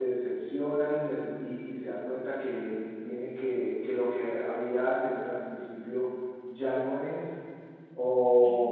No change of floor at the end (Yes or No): Yes